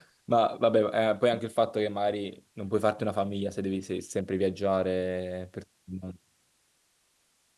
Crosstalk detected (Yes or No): No